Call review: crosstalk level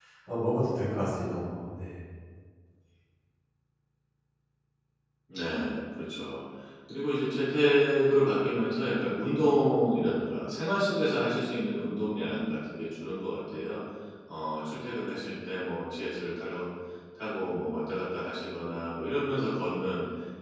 none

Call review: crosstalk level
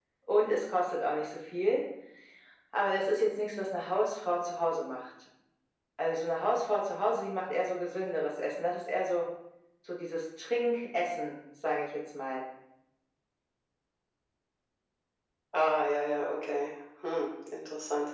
none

